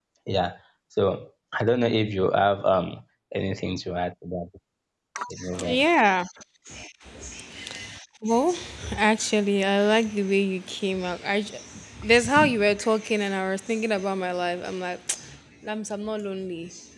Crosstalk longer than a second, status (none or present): none